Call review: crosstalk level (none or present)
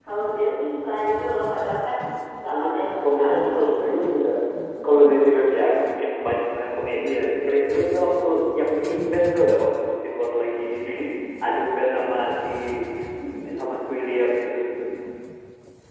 present